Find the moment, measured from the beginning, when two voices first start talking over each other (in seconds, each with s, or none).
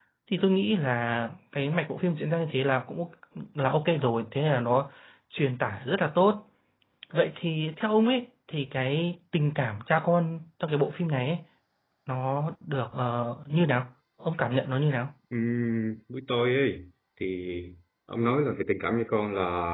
none